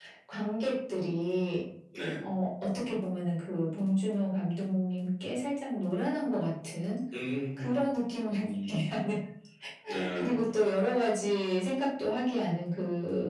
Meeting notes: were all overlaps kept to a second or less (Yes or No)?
Yes